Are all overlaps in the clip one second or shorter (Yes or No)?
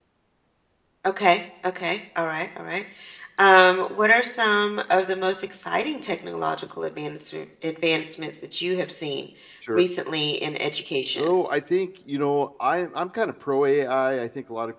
Yes